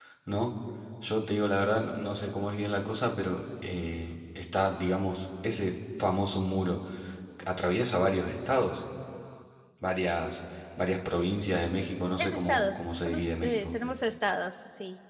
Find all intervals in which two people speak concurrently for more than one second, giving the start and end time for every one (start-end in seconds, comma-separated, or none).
12.2-13.7